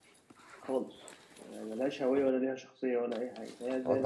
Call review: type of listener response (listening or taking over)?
taking over